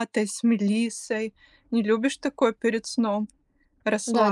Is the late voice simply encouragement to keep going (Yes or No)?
No